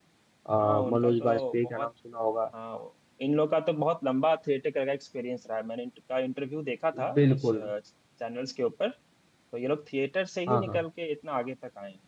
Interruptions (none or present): present